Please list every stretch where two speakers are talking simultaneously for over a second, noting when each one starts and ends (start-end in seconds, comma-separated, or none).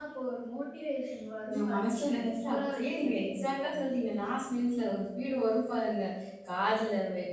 1.5-3.7